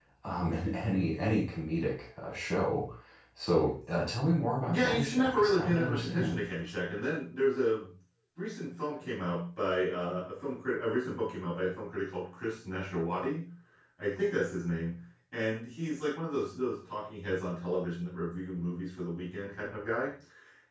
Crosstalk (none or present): present